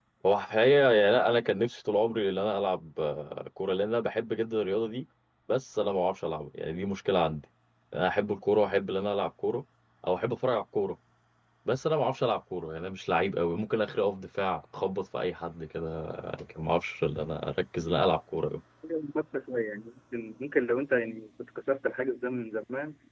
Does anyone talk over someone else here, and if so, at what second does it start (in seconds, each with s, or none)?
none